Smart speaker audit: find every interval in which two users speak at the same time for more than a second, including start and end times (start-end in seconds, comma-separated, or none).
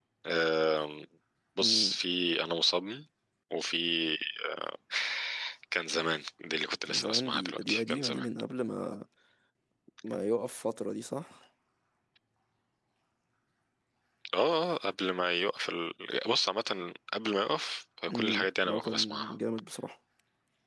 6.8-8.3, 18.1-19.3